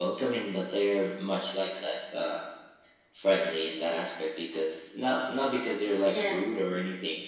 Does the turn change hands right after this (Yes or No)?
No